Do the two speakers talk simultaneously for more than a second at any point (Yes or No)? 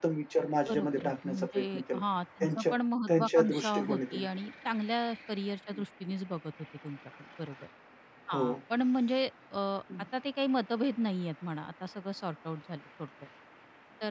Yes